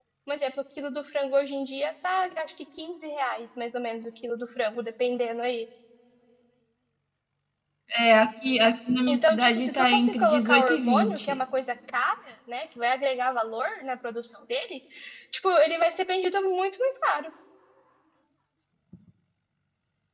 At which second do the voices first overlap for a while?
9.1 s

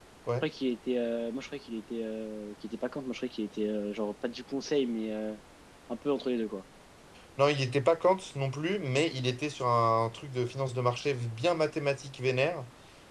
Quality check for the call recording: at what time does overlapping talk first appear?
none

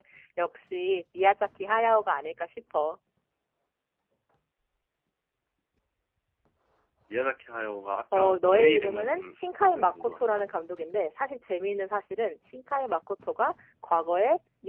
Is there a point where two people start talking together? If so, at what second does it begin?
8.1 s

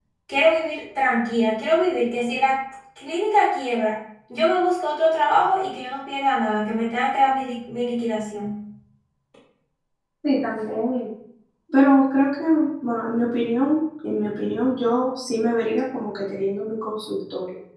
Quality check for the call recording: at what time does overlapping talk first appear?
none

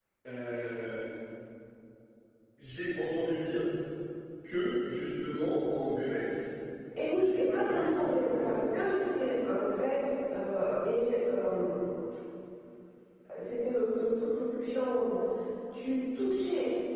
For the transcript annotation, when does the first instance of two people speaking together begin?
7.1 s

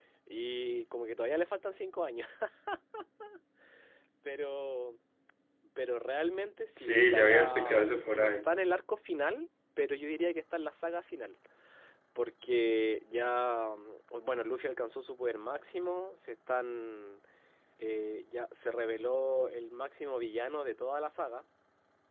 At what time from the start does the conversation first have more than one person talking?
6.8 s

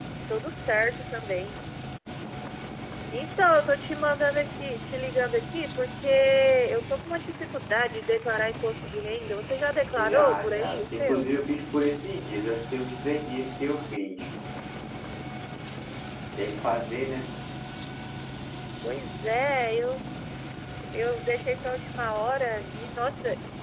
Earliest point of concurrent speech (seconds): 10.0 s

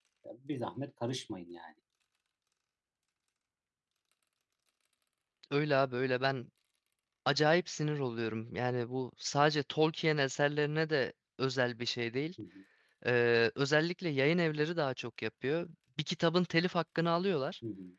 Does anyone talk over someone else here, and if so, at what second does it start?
none

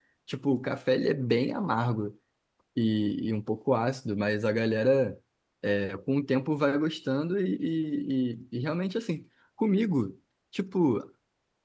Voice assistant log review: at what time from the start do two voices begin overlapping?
none

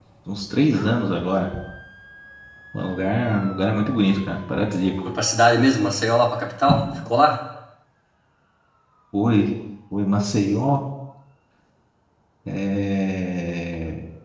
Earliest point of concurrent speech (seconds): none

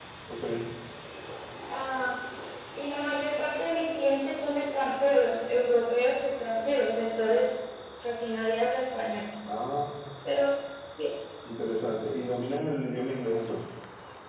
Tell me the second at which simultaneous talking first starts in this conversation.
none

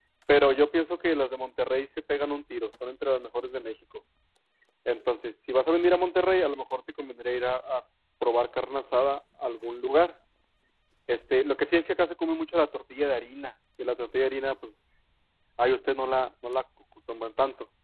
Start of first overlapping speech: none

